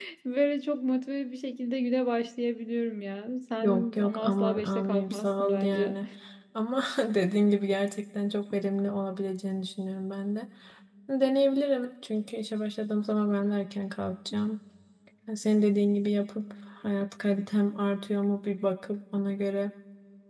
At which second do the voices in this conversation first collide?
3.6 s

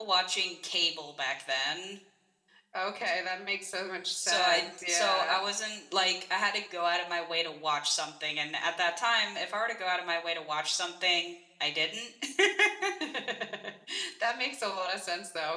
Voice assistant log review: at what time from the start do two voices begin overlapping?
4.2 s

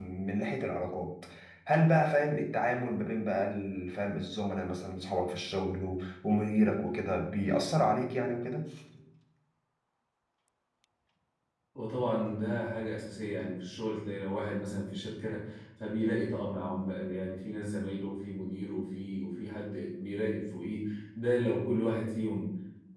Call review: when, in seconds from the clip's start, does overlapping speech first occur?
none

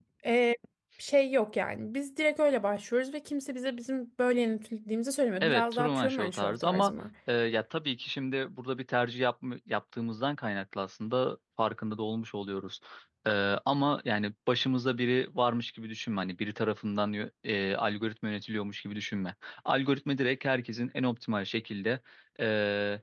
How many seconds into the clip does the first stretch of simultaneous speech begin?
5.4 s

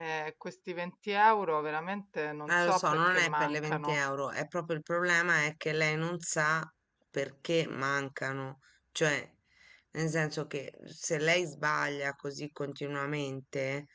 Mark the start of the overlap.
2.5 s

